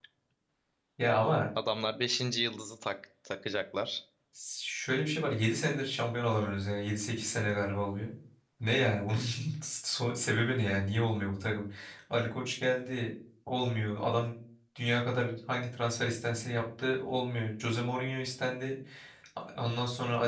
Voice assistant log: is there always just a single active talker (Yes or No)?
Yes